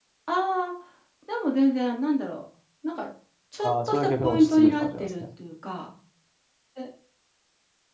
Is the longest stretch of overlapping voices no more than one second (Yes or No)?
No